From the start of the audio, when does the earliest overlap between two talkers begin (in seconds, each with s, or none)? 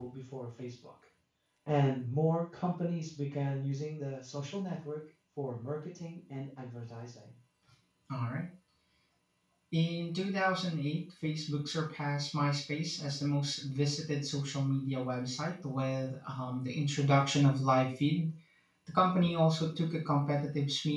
none